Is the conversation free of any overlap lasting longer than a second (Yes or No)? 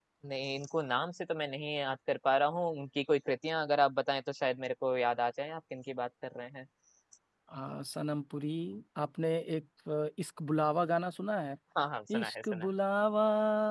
Yes